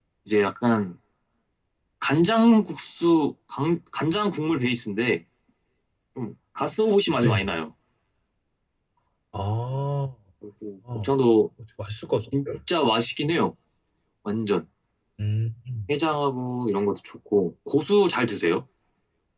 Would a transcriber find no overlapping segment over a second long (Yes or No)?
Yes